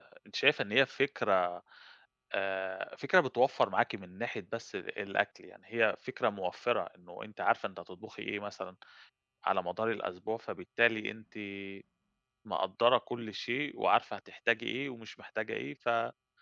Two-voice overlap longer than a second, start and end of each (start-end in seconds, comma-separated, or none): none